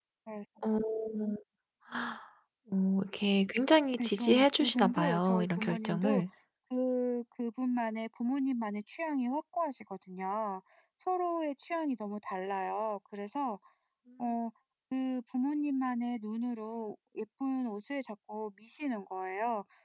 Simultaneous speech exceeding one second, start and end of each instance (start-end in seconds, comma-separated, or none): 4.0-6.2